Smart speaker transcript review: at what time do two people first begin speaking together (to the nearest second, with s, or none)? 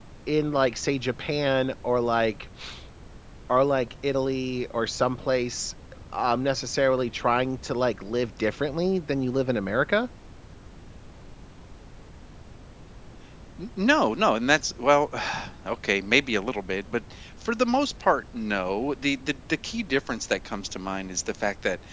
none